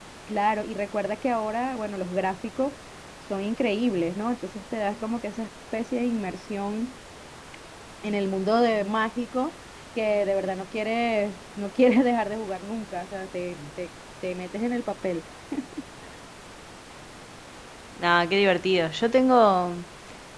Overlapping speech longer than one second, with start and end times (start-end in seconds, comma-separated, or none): none